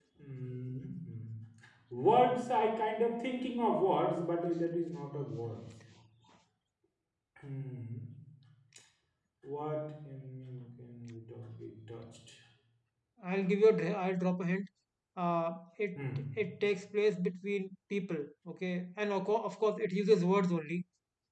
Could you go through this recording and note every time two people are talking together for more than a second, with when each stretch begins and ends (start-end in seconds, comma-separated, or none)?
none